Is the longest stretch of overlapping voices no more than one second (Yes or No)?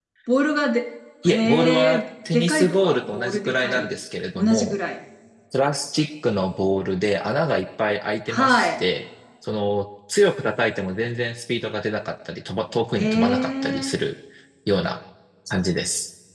No